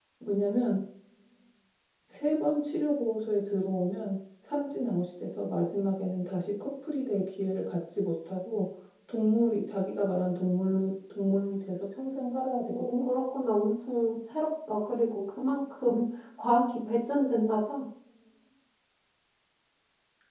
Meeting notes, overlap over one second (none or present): none